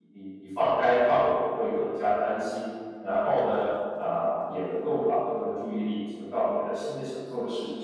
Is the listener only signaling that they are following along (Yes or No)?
No